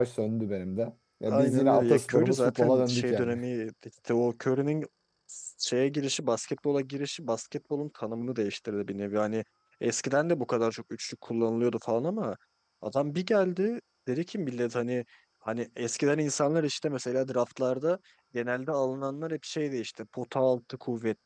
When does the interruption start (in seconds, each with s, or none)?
1.3 s